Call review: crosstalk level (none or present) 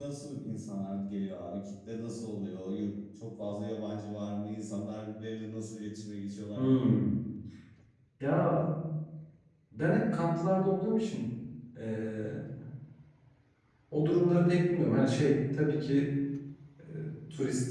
none